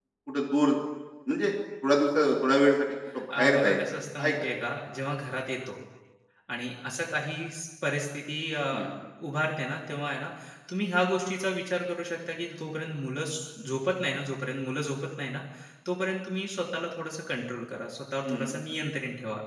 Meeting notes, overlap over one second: present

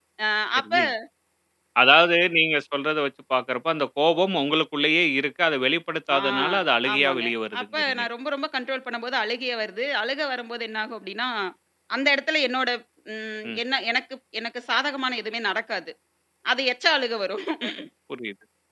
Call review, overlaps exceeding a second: none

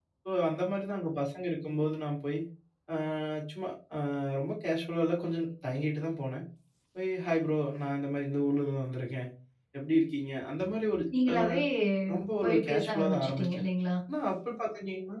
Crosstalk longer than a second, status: present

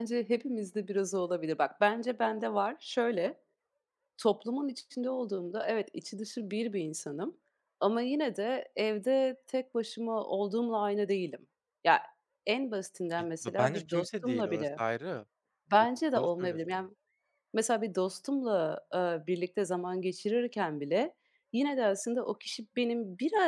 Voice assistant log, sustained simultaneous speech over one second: present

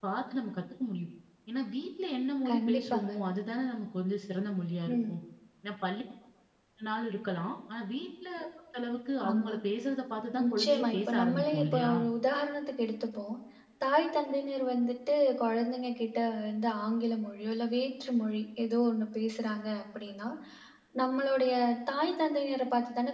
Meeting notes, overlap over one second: present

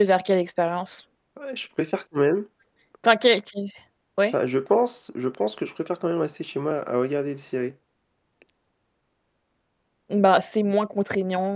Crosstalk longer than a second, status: none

